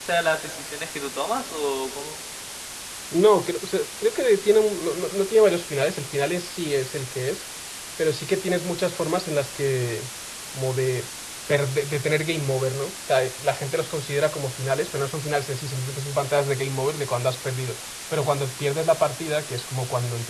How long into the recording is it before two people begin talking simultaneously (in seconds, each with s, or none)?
none